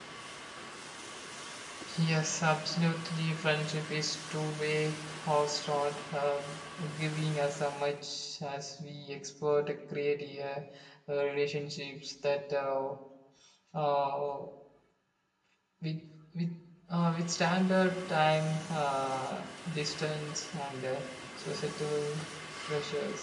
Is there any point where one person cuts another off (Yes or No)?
No